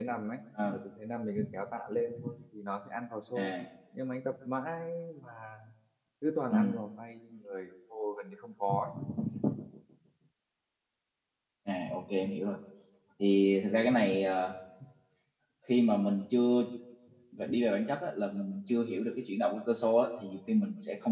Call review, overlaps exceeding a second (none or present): none